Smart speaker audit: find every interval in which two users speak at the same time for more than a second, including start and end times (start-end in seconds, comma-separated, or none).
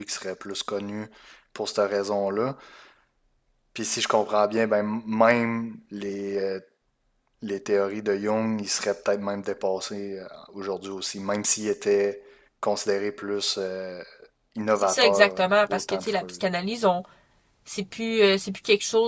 14.8-16.3